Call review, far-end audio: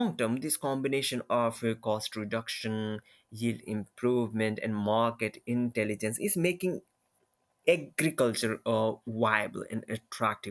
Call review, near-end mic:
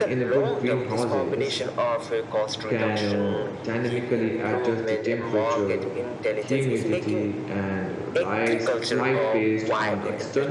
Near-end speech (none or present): present